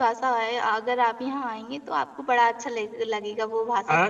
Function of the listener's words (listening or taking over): taking over